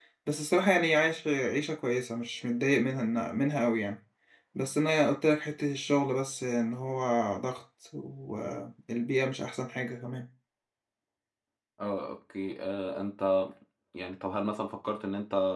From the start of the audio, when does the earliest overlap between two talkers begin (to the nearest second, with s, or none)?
none